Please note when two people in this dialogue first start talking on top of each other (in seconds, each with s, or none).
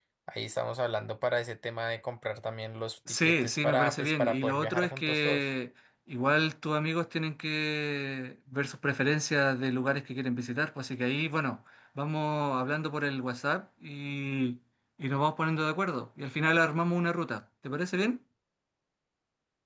3.1 s